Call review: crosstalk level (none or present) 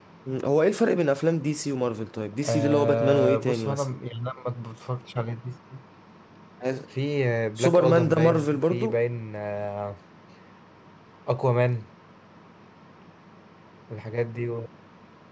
present